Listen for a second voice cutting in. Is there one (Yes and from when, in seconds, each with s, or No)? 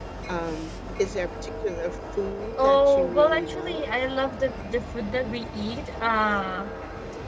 Yes, from 2.6 s